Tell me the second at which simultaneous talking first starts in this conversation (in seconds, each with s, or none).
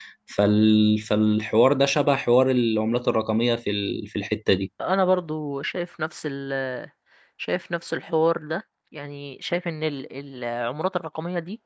none